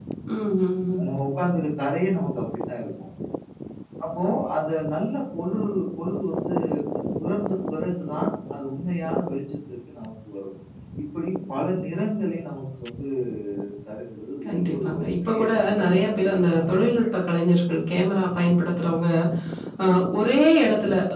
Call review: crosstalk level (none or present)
present